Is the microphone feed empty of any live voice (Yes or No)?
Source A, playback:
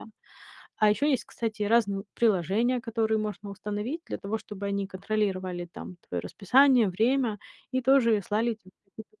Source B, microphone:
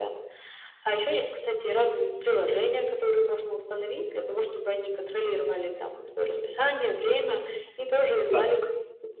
No